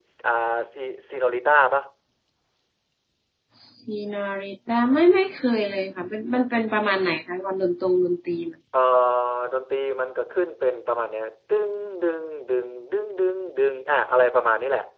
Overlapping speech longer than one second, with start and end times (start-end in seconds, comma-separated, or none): none